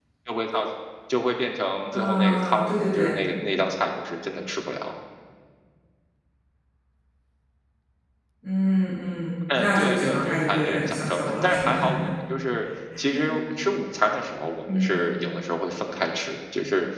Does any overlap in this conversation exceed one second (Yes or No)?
Yes